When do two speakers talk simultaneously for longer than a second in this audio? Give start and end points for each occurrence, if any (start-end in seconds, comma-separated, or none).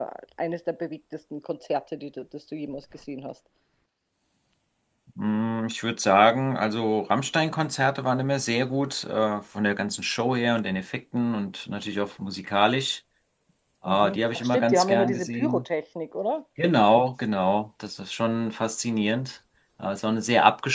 13.8-15.6